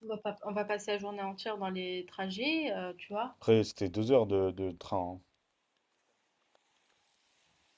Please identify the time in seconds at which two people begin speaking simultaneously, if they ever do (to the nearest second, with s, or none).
none